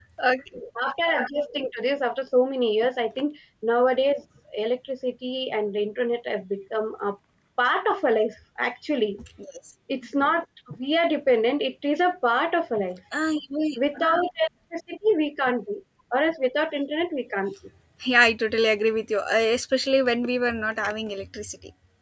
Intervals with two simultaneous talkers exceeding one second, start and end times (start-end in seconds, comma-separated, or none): none